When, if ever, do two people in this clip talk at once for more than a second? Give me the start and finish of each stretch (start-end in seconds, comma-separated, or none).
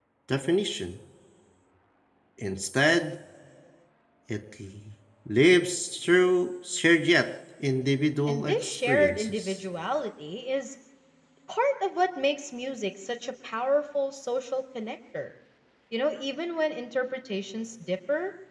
8.3-9.6